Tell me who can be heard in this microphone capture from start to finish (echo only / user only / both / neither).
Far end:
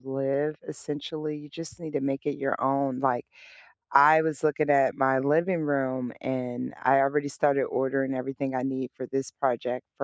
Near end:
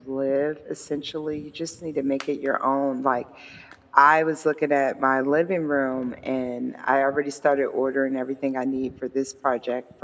echo only